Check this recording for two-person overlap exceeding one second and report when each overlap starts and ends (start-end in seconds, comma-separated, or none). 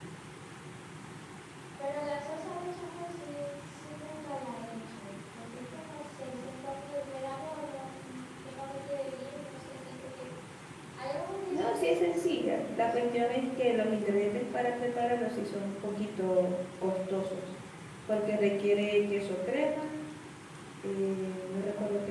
11.5-14.3